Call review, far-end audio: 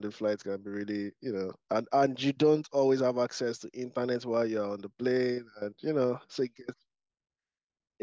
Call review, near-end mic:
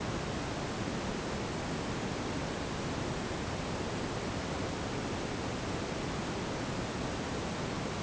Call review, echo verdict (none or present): none